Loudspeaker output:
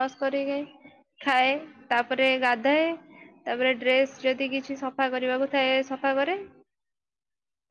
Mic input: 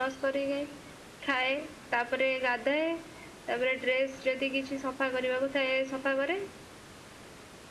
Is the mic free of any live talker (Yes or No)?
Yes